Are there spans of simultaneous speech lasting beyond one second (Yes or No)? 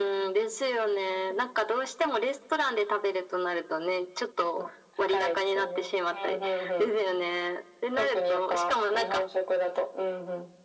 Yes